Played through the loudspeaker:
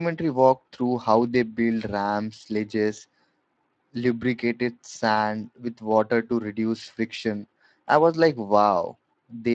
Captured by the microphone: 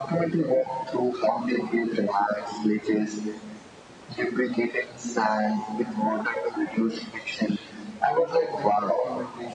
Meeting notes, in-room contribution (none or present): present